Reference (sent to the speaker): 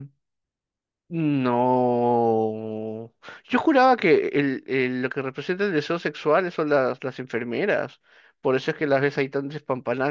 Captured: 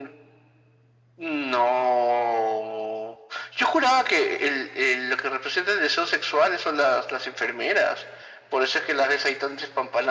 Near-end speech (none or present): none